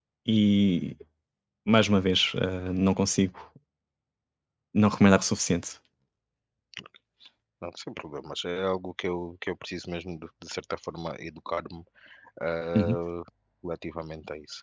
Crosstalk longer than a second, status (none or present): none